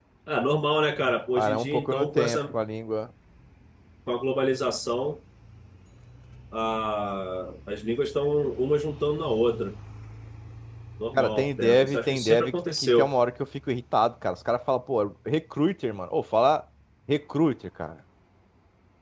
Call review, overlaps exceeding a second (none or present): present